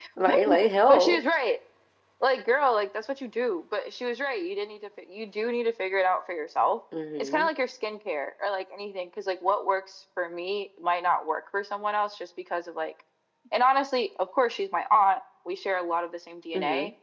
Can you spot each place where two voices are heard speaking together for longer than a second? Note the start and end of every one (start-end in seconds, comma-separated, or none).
none